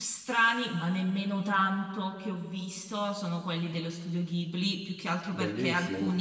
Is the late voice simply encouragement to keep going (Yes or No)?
Yes